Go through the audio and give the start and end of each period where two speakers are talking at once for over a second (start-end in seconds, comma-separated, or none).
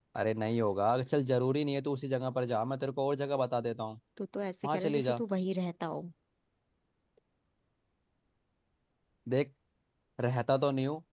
none